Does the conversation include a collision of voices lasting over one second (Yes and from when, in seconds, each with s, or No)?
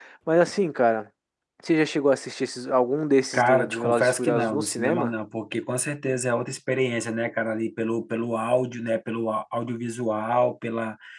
Yes, from 3.3 s